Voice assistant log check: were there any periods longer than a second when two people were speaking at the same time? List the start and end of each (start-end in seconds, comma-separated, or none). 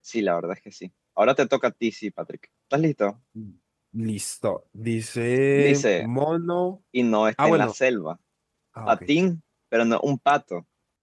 none